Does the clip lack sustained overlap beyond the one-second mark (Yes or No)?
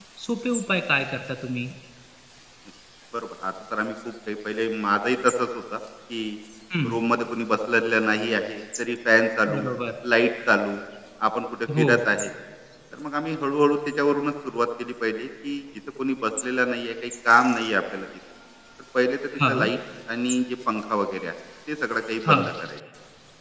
Yes